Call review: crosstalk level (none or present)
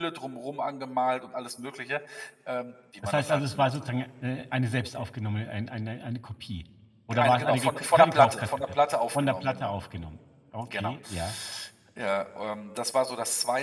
present